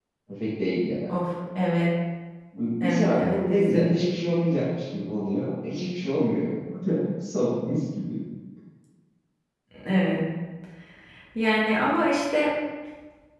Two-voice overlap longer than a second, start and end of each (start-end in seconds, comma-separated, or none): 2.8-4.0